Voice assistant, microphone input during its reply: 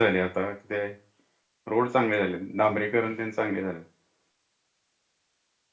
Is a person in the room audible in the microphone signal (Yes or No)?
Yes